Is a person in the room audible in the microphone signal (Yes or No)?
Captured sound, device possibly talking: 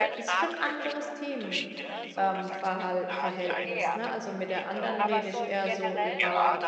Yes